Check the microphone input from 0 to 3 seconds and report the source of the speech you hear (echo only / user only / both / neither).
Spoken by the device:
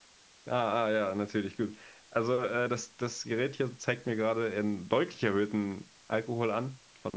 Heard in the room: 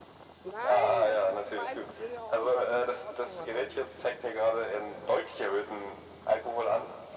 both